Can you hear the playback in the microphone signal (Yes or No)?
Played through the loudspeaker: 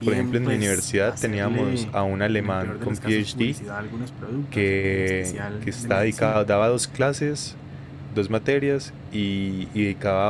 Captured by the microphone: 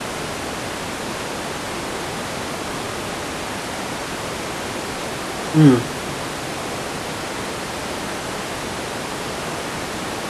No